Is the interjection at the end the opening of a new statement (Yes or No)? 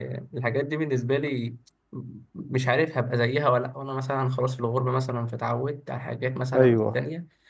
No